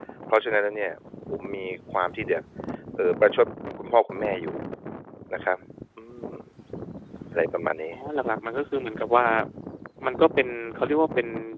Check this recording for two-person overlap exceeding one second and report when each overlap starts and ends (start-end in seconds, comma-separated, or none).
none